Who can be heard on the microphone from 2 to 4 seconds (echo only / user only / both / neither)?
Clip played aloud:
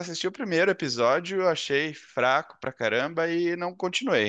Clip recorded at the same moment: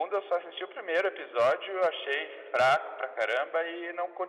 echo only